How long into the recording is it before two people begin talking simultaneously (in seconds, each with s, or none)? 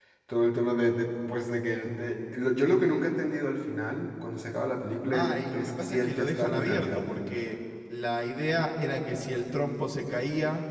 5.1 s